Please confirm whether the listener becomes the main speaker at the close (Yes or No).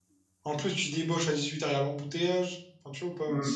Yes